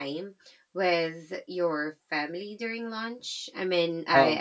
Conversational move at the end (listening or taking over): listening